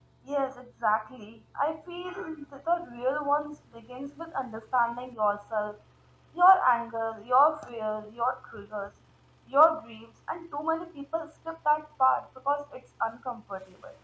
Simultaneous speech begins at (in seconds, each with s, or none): none